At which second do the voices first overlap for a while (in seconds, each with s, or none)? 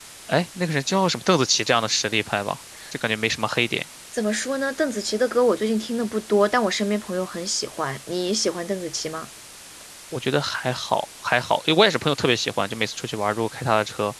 none